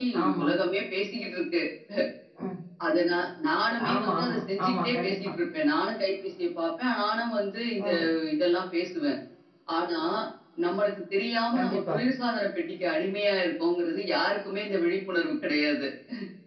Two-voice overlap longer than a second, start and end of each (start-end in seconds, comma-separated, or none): 3.9-5.1